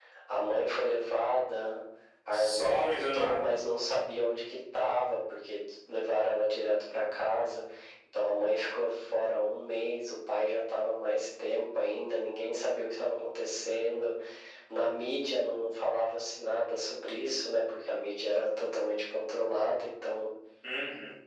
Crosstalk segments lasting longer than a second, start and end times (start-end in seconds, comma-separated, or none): 2.3-3.6